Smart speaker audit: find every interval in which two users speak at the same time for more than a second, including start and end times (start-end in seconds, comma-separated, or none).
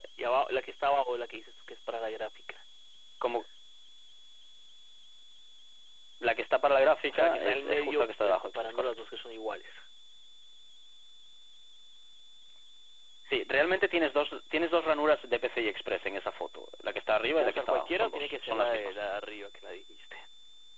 7.1-9.0, 17.4-19.0